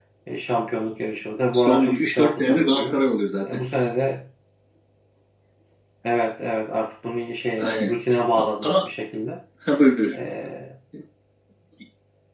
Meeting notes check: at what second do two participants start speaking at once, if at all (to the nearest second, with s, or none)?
2 s